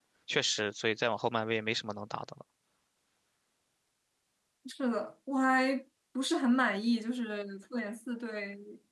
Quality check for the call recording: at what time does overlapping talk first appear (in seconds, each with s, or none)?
none